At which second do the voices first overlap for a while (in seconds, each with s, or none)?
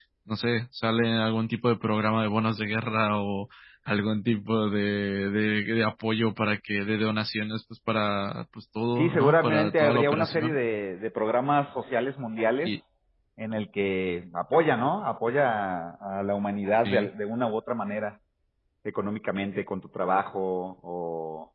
9.0 s